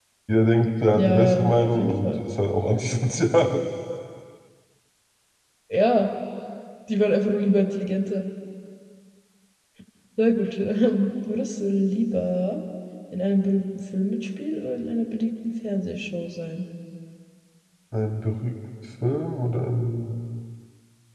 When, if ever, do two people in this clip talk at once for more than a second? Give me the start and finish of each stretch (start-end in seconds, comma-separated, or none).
0.9-2.2